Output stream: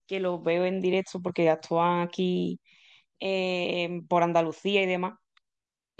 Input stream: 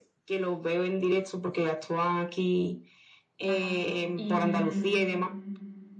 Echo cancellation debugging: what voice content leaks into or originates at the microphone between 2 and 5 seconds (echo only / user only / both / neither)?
both